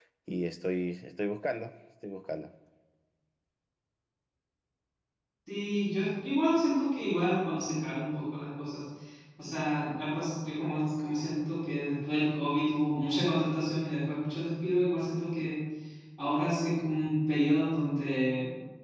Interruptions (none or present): none